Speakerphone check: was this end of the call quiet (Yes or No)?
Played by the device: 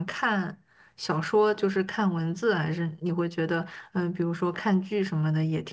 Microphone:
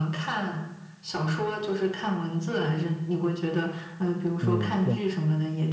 No